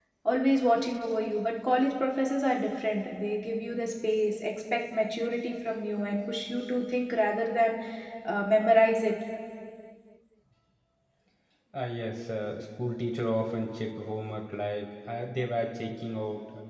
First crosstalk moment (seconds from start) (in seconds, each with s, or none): none